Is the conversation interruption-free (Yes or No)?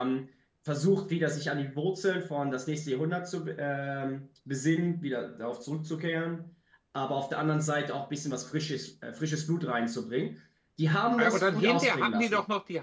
No